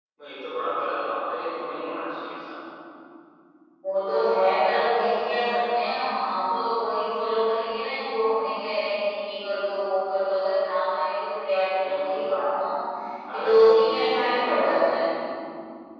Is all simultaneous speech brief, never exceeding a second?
No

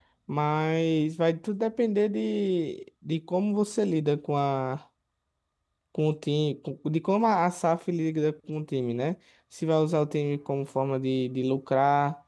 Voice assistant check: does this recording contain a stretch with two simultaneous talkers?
No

